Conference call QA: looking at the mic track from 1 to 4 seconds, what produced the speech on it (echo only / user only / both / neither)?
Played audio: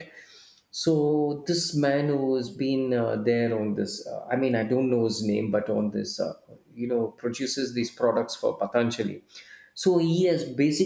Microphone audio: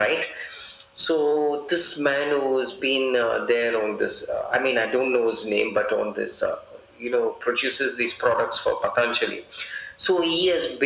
echo only